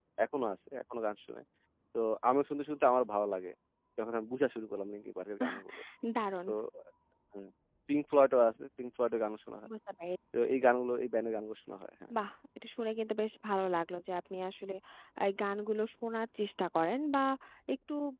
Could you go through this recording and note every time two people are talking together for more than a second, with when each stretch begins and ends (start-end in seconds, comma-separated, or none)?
none